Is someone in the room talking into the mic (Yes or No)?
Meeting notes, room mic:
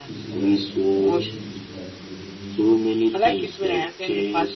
Yes